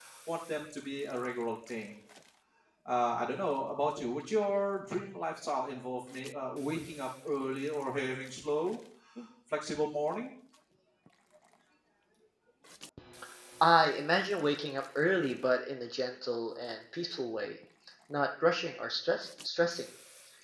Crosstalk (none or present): none